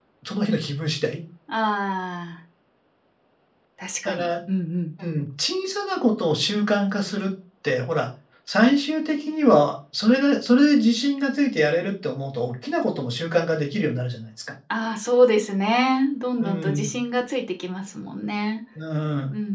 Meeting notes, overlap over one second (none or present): none